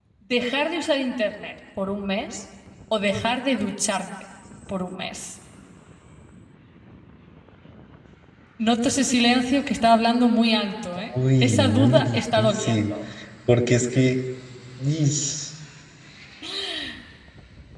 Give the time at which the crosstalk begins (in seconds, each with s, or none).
11.4 s